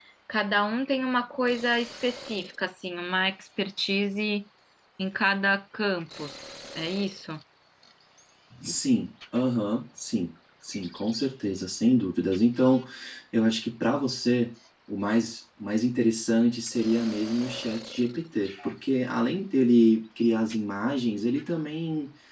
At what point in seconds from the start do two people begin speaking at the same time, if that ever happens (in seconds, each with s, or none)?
none